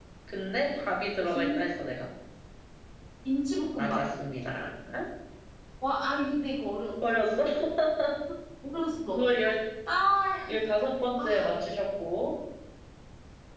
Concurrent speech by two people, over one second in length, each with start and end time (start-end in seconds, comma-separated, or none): none